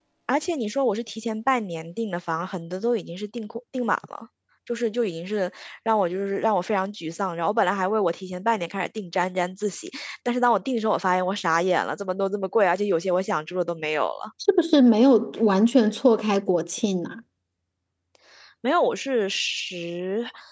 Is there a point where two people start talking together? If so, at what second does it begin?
none

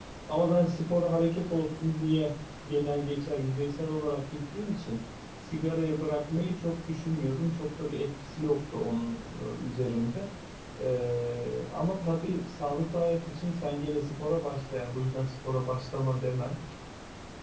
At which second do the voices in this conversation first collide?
none

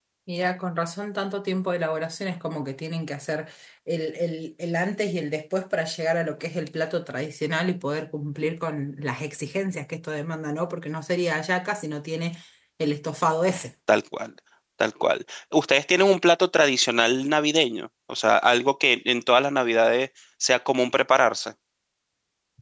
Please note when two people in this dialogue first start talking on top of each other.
none

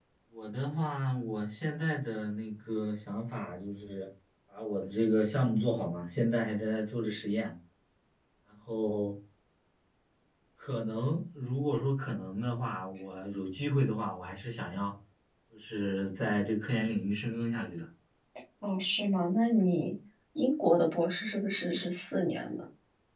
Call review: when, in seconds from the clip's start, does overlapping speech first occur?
none

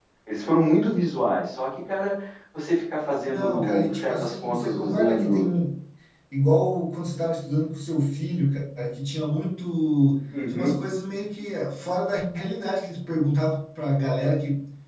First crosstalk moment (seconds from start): 3.3 s

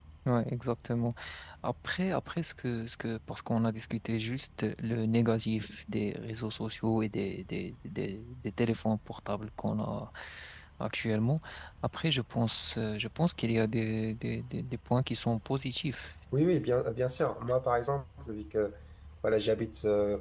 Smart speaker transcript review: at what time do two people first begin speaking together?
none

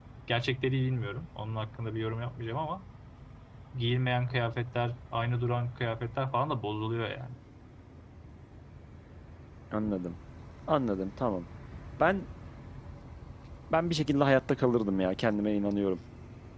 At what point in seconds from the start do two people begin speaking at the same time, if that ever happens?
none

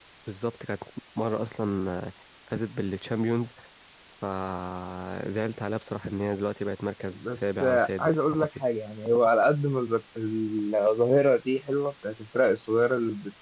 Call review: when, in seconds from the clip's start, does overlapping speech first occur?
7.1 s

